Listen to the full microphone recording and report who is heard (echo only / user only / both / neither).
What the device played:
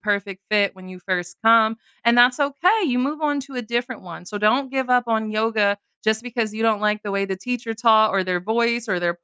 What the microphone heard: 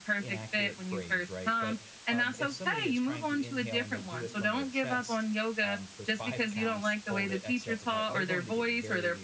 both